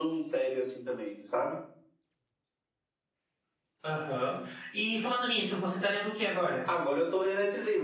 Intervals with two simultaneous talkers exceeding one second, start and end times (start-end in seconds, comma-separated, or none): none